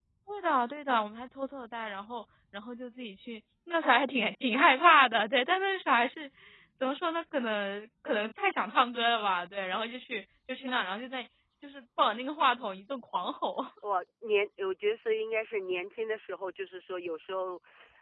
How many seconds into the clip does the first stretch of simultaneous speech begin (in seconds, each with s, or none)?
none